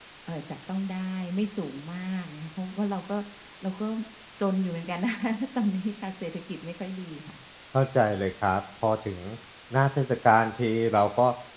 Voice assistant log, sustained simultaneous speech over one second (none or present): none